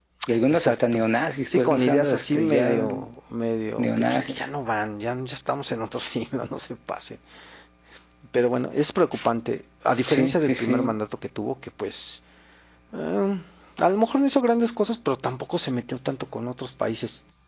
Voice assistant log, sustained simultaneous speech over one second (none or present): present